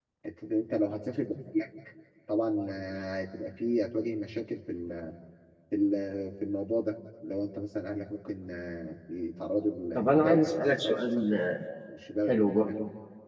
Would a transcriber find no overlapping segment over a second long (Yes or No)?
No